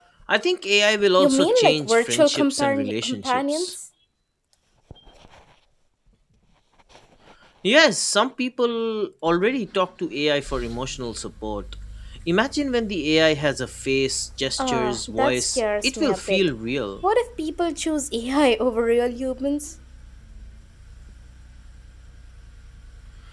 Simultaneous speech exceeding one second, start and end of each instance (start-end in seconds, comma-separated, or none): 1.2-3.7, 14.6-16.4